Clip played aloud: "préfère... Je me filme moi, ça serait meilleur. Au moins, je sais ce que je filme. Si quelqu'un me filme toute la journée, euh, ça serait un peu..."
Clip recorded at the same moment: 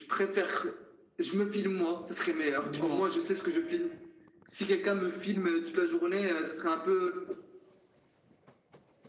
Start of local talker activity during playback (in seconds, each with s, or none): 2.6 s